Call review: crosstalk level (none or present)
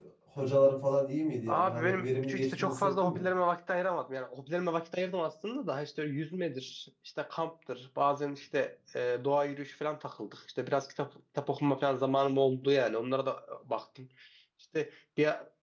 present